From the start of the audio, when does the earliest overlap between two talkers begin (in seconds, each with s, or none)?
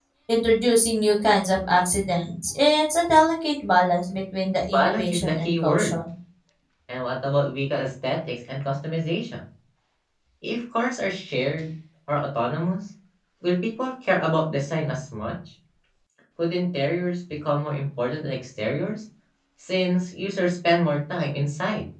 4.7 s